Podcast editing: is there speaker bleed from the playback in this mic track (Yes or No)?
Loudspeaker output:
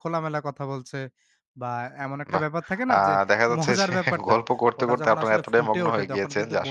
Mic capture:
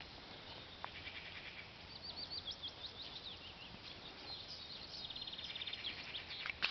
No